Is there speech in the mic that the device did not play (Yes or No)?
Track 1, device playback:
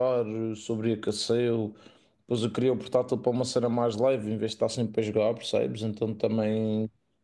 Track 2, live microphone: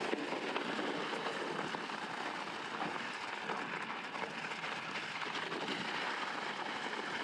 No